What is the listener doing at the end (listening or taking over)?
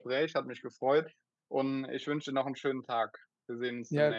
taking over